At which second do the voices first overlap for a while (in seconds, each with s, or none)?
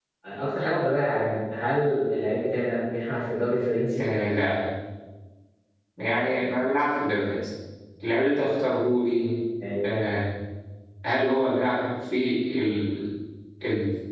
none